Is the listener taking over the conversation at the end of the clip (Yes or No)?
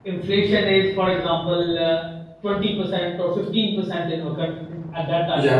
No